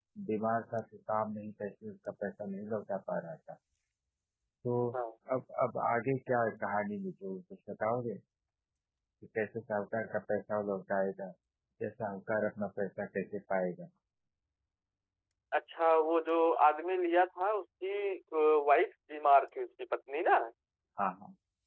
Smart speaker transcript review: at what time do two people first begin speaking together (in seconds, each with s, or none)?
none